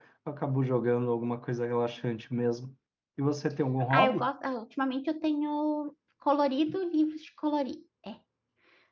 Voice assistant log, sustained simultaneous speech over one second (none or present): none